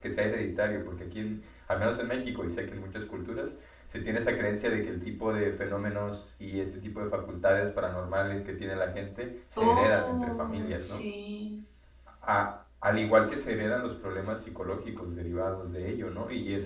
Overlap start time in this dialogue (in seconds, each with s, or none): 9.6 s